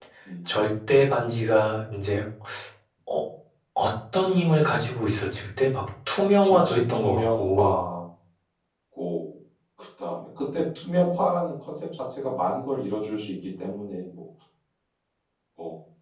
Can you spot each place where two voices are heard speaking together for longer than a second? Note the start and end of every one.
6.4-7.8

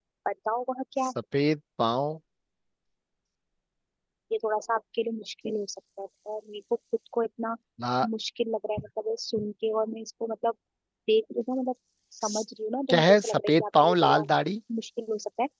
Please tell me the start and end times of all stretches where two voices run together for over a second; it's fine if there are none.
12.9-14.2

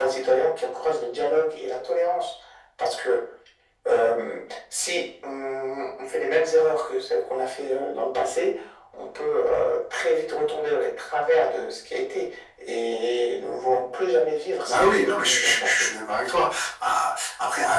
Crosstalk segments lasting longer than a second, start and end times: 14.7-15.9

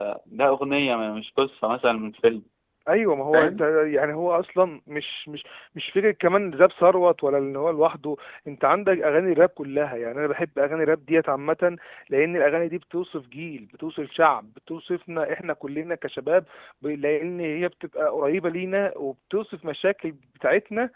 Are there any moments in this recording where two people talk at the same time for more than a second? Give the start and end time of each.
none

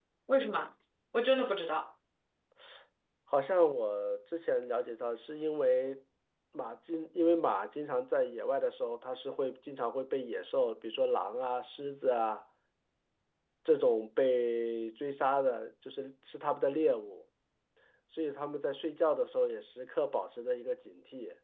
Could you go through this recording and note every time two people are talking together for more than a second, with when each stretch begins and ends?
none

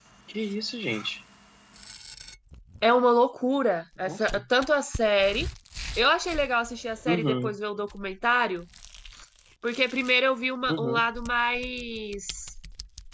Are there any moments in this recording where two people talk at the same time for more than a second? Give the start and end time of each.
none

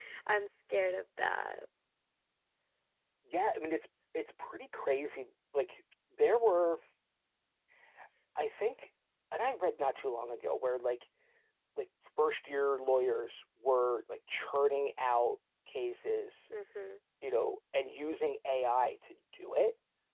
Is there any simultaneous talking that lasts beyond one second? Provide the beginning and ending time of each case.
none

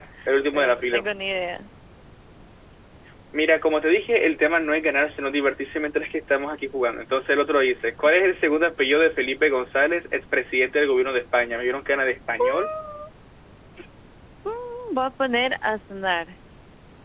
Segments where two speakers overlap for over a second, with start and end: none

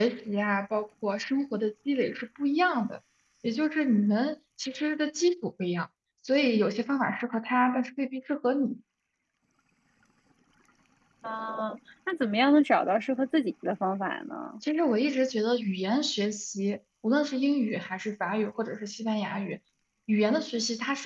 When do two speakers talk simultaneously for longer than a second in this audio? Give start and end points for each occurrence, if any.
none

